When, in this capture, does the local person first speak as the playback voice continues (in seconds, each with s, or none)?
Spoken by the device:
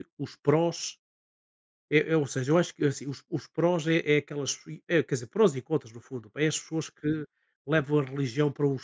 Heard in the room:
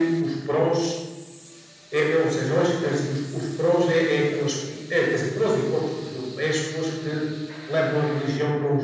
none